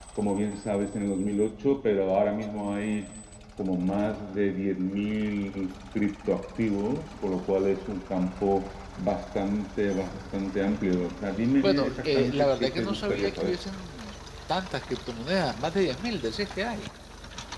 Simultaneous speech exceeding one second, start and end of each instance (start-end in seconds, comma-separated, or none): 11.6-13.6